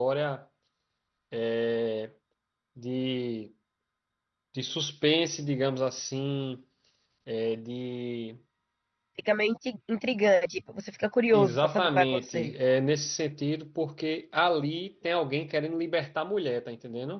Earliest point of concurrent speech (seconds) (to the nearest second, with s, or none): 11 s